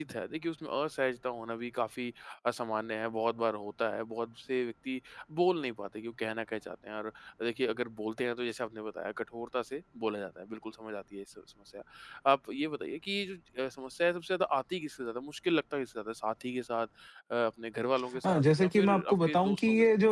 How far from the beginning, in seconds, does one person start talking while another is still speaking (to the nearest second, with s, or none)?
18 s